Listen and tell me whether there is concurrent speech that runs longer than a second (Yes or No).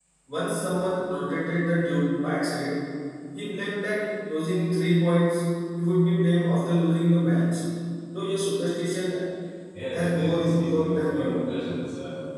Yes